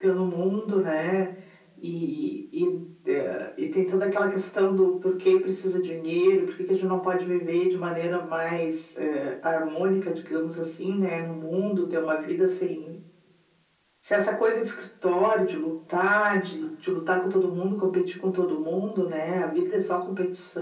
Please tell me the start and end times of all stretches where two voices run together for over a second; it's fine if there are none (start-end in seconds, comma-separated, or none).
none